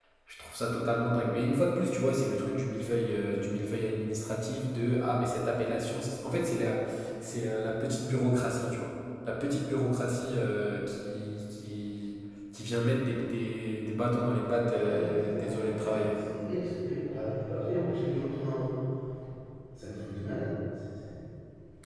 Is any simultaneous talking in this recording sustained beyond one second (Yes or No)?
Yes